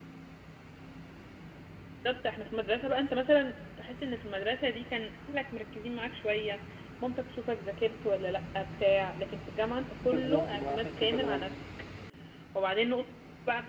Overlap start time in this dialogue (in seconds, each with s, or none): 10.0 s